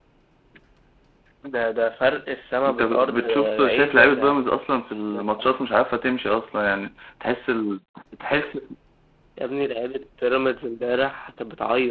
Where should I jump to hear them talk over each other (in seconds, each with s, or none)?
2.7 s